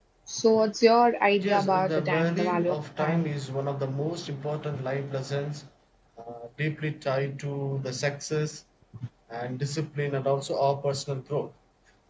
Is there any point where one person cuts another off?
Yes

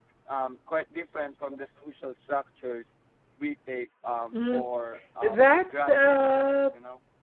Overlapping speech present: Yes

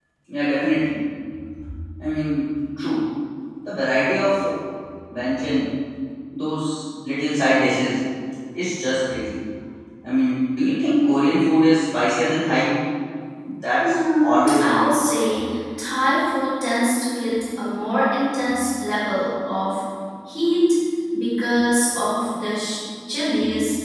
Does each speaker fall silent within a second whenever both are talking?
No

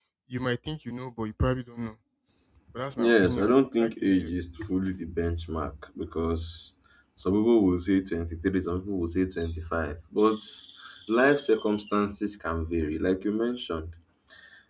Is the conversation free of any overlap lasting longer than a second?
No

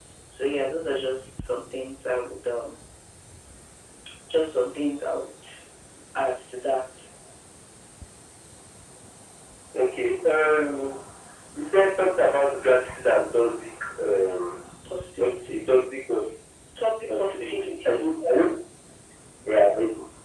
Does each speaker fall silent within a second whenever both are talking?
No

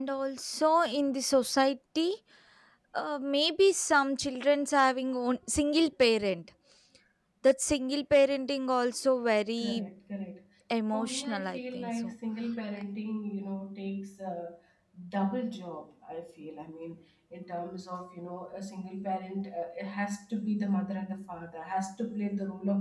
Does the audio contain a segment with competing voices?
Yes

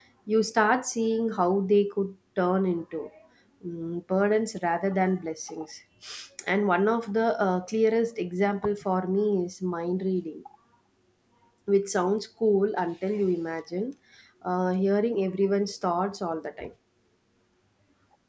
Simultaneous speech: No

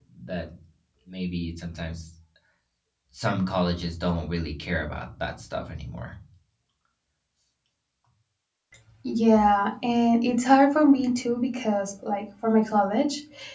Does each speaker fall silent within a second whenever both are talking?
Yes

